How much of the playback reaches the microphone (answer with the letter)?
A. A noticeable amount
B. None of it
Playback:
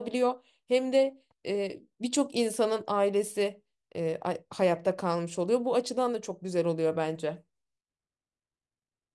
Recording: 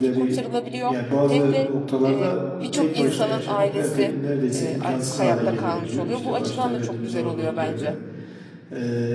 A